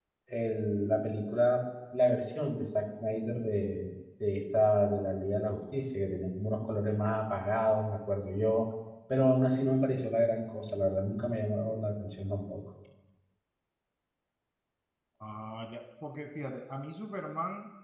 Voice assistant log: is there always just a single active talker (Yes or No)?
Yes